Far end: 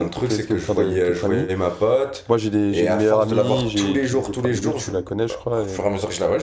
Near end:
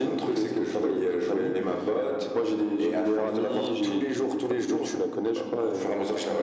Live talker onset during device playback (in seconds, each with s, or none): none